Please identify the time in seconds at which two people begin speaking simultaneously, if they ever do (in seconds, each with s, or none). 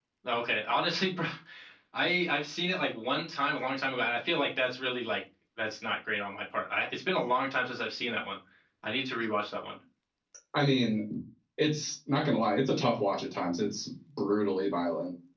none